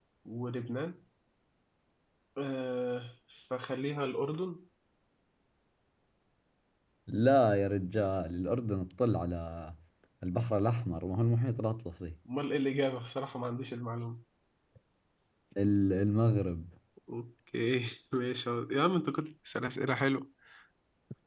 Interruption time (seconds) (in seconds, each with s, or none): none